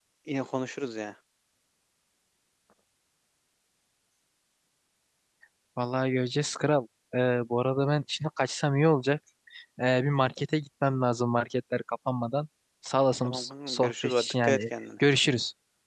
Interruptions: present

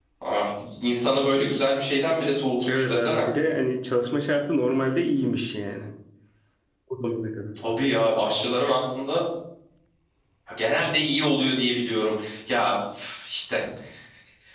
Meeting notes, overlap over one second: none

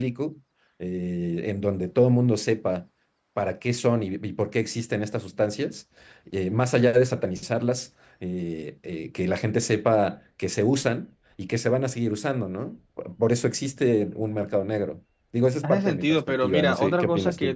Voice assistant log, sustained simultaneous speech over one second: present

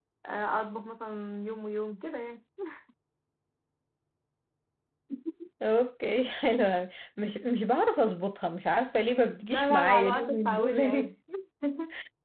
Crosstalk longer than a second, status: present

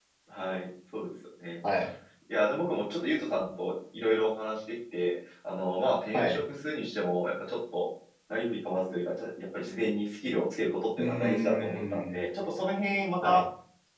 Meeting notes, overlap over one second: present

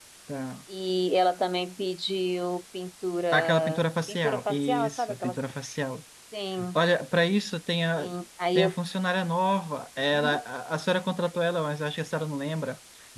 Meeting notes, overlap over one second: present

